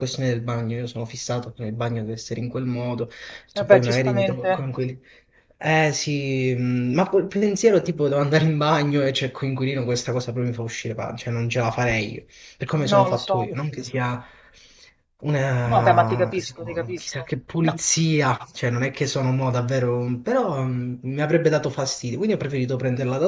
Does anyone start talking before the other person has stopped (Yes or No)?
Yes